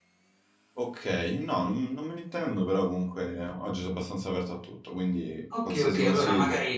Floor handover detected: Yes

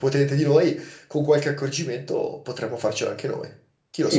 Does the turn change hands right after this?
Yes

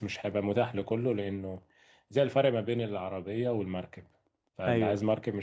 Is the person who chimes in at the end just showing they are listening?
Yes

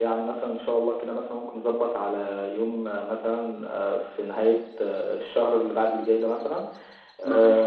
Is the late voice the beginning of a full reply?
No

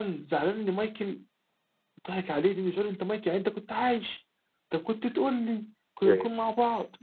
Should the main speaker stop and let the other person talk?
No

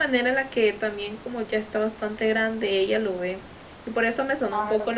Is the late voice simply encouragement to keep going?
Yes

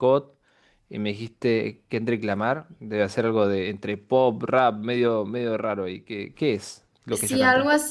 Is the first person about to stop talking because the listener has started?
Yes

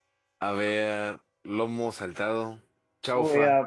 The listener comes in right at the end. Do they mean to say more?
Yes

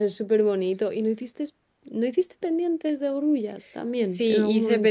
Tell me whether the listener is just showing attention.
No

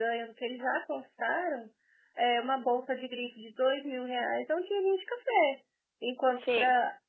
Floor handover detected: No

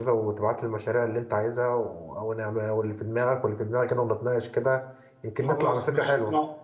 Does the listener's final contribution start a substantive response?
Yes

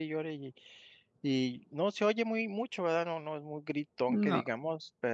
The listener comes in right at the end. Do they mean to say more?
No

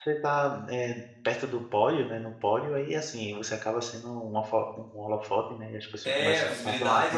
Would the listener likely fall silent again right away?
No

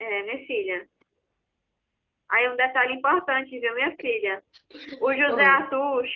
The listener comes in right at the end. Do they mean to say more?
No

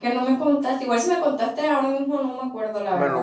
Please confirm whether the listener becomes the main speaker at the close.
Yes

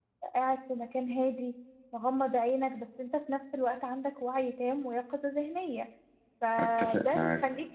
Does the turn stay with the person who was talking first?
Yes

